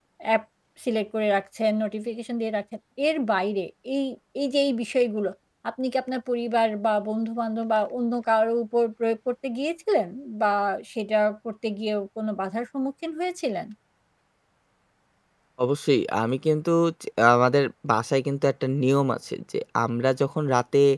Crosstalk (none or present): none